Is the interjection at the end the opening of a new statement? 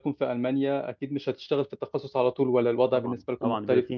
Yes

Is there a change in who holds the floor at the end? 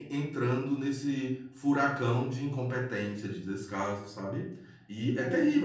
No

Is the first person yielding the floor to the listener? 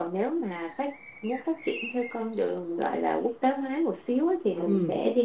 No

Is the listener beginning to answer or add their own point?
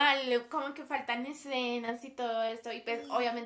No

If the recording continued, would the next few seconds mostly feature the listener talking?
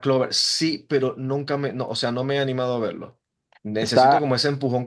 No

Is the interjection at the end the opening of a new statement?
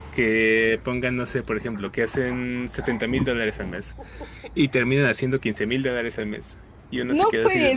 Yes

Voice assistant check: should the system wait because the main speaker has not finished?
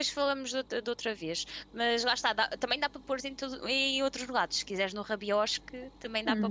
No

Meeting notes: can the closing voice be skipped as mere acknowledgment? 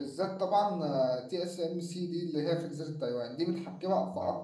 Yes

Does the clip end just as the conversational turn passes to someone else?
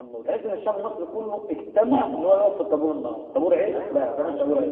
Yes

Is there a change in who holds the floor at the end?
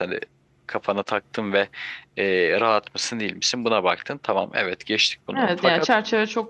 Yes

